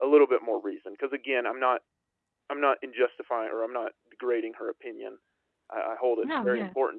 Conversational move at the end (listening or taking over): listening